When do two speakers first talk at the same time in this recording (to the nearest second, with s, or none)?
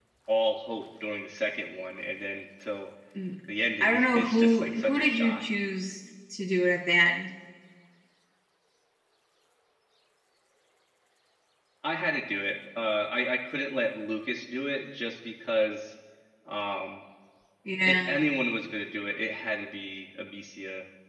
4 s